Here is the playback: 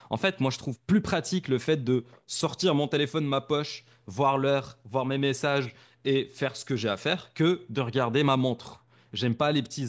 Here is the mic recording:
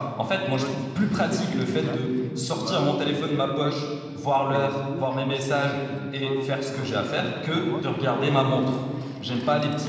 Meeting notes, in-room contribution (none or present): present